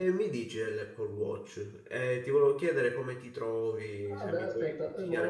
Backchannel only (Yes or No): No